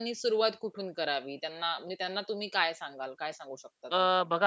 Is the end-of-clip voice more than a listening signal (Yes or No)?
Yes